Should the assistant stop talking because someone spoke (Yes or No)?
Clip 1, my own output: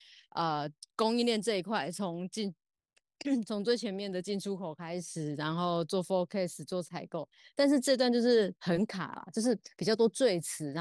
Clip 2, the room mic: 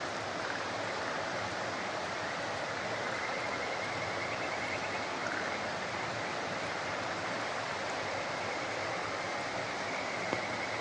No